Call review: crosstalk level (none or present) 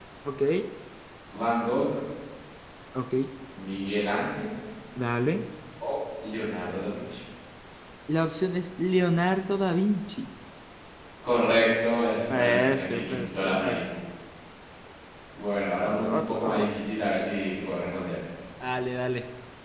present